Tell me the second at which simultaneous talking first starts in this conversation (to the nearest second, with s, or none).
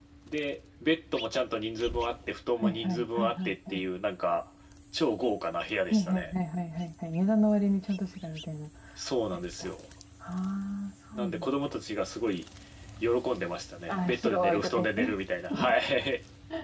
3 s